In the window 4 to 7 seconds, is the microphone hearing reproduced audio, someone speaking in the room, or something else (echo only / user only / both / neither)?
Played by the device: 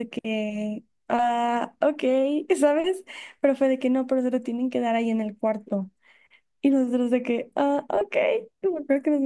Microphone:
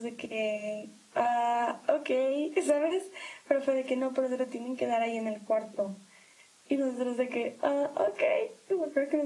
echo only